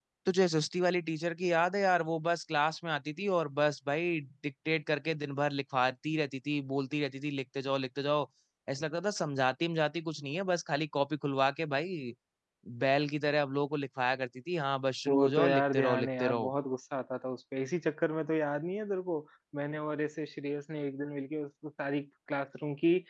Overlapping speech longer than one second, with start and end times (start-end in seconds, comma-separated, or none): 15.1-16.5